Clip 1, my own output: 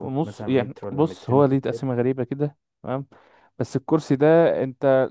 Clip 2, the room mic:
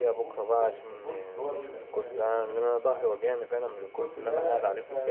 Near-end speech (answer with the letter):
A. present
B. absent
A